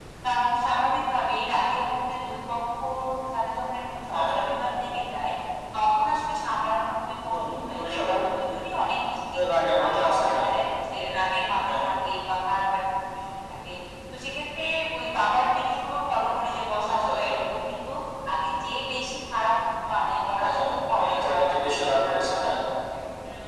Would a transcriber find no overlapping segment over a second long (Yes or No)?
No